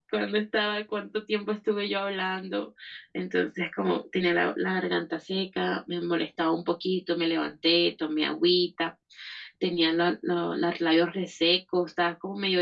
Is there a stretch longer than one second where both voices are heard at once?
No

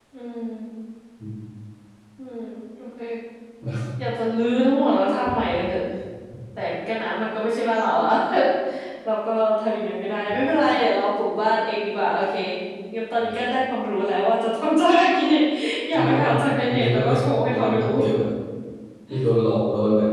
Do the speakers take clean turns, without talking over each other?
No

